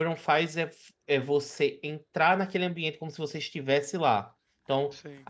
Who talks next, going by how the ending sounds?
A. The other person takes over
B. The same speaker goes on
B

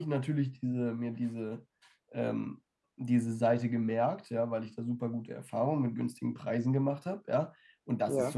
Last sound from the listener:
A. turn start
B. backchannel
B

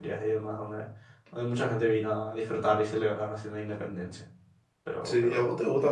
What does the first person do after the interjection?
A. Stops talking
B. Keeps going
A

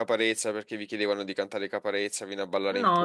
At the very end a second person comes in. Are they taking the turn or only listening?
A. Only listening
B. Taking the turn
B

